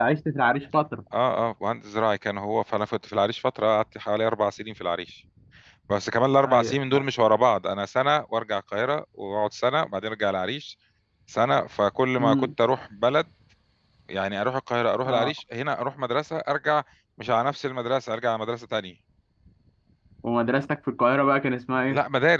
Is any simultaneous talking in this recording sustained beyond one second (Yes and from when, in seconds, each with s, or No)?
No